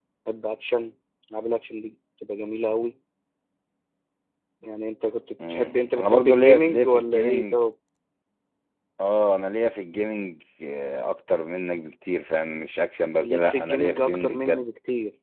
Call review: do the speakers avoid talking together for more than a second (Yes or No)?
No